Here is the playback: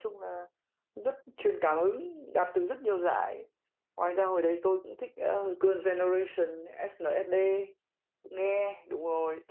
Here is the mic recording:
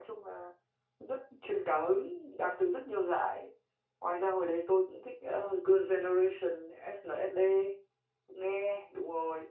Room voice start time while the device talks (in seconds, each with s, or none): none